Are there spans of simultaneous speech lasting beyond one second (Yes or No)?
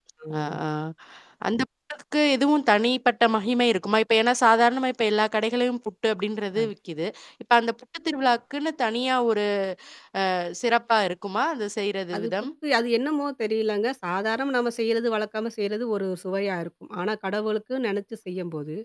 No